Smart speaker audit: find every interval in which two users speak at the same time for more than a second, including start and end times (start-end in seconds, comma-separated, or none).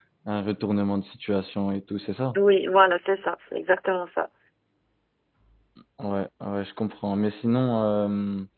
none